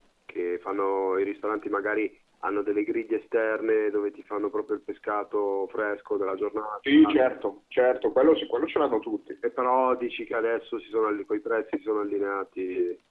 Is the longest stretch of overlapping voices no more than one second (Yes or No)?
Yes